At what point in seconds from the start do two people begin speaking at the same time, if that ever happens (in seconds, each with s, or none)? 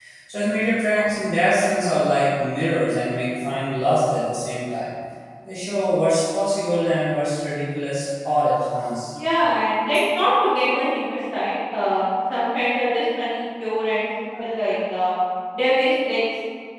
none